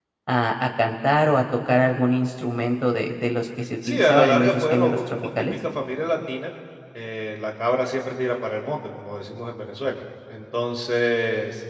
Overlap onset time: 4 s

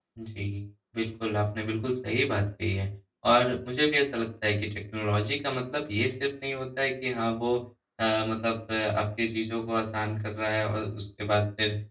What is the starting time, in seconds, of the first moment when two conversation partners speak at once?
none

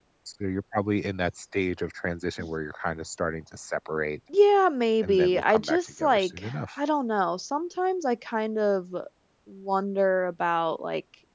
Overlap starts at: 5 s

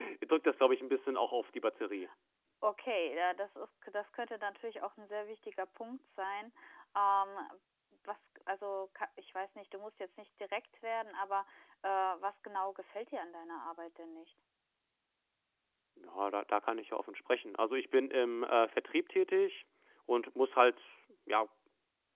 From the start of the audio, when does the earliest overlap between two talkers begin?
none

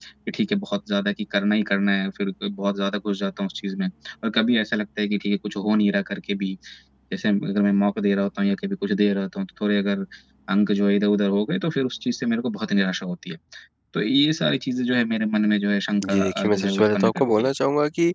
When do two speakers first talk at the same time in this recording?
16 s

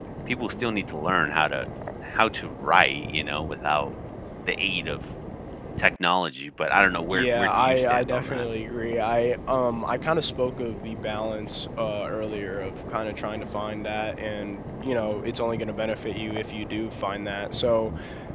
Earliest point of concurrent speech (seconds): 7 s

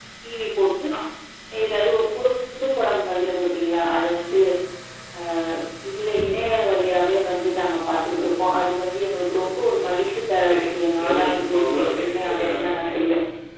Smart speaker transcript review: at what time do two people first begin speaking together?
10 s

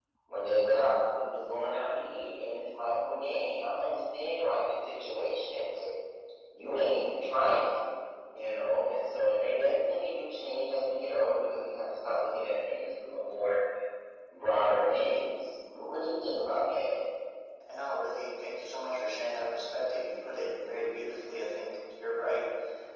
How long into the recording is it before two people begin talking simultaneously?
none

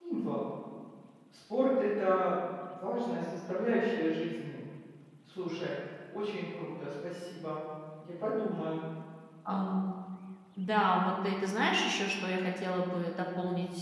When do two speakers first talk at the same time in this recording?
none

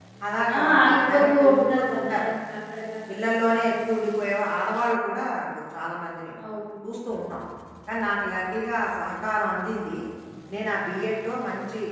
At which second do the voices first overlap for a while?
1 s

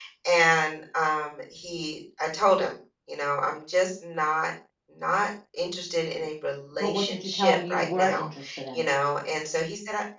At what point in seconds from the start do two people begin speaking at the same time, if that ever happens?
7 s

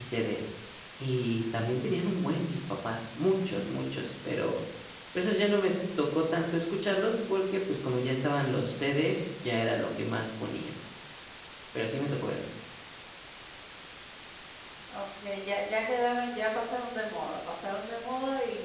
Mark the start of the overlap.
none

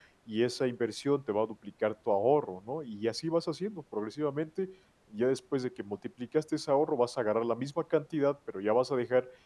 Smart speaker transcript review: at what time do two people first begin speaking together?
none

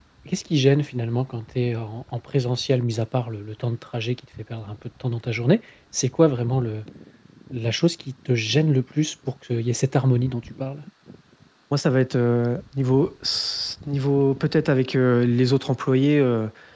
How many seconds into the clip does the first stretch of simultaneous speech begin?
none

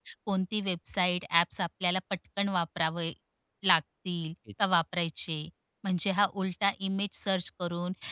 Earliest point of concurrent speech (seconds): none

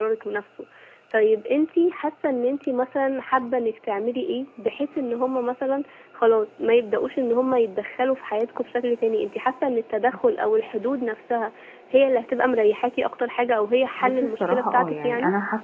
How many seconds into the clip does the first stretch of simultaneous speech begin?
14 s

